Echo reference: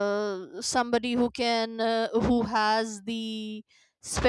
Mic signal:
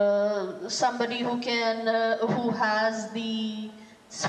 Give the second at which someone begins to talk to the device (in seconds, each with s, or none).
none